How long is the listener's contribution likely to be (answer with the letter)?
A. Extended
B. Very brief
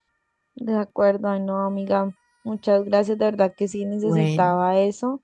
B